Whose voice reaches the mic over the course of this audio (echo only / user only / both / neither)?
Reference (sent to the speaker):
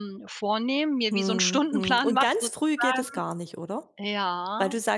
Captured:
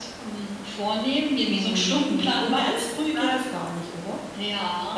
echo only